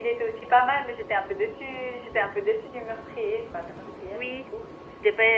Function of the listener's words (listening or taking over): taking over